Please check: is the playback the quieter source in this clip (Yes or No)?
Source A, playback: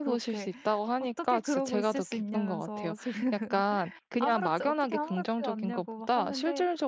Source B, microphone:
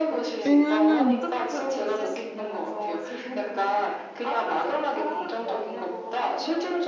Yes